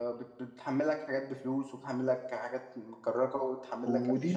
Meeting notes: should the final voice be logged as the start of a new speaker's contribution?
Yes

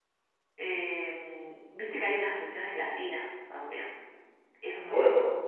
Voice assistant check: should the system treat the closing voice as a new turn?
Yes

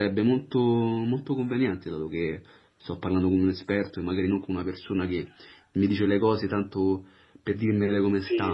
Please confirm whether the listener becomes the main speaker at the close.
Yes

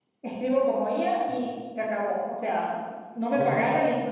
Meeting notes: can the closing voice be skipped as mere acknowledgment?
Yes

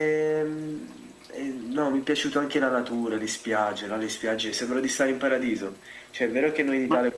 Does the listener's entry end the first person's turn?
No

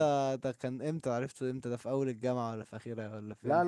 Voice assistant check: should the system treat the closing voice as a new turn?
Yes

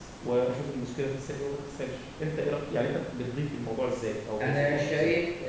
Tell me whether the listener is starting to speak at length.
Yes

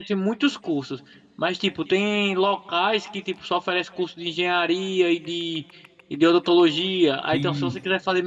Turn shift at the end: No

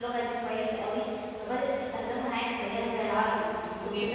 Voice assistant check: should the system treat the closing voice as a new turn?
Yes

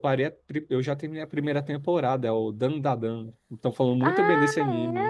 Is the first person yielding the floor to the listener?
Yes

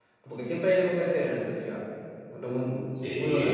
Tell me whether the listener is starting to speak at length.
Yes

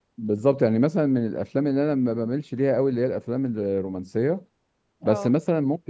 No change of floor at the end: Yes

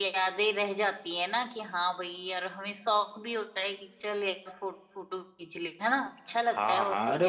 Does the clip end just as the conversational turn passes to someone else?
Yes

